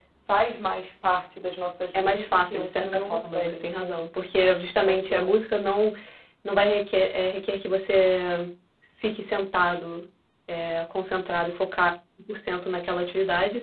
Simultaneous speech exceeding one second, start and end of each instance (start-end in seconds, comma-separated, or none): 1.9-4.0